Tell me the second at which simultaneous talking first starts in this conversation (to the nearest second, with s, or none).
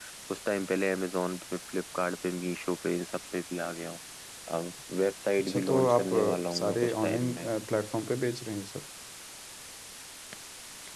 5 s